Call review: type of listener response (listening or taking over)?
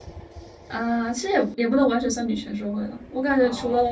listening